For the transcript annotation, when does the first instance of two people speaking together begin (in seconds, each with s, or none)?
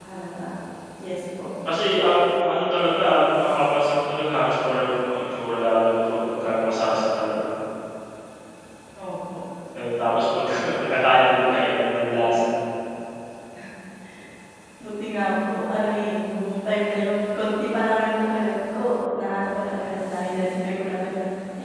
none